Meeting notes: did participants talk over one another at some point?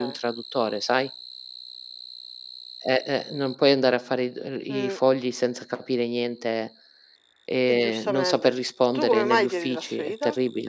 Yes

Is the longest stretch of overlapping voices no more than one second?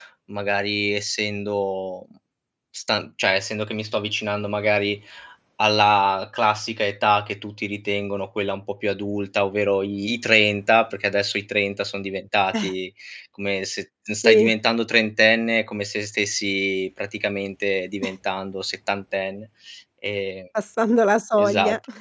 Yes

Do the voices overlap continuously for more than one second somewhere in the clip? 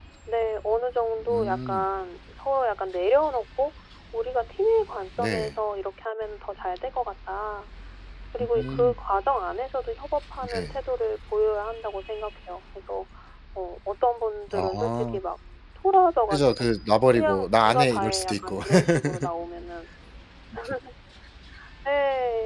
Yes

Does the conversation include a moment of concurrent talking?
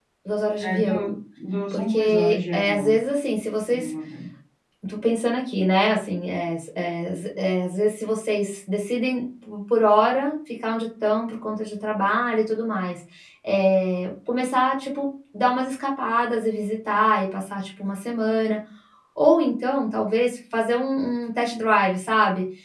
Yes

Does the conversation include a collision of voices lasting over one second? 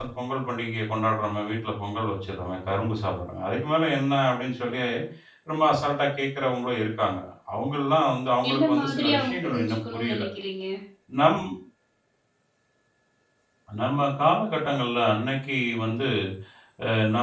Yes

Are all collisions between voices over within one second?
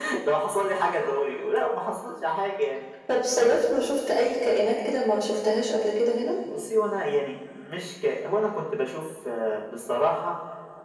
Yes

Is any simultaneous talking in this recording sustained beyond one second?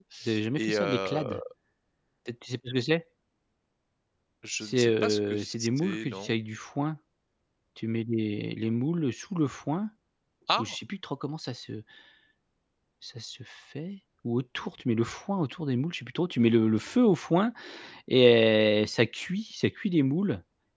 Yes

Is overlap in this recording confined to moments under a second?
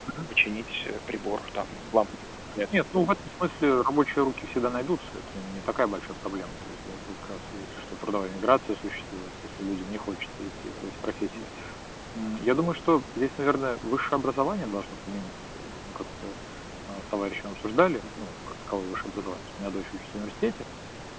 Yes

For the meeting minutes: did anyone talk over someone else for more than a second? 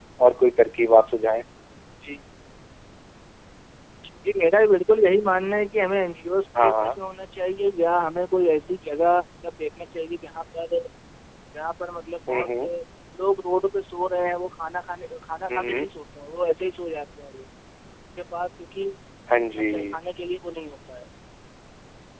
No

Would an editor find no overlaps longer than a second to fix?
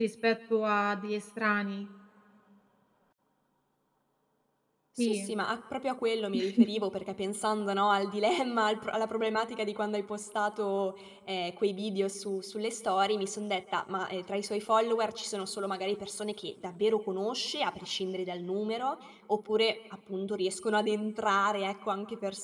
Yes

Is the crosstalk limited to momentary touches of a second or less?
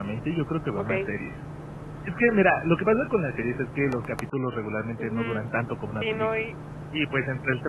Yes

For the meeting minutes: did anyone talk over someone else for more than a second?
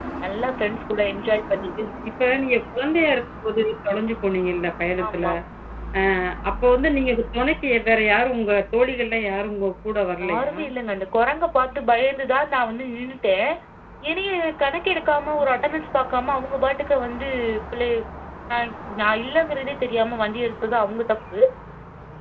No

